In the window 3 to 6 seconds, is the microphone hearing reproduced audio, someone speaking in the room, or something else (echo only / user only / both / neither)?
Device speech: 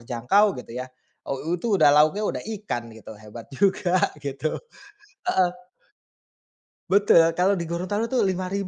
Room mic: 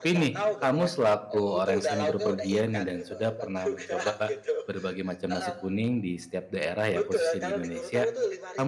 both